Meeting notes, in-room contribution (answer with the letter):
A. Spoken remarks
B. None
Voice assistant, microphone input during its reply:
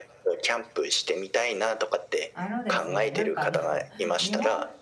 A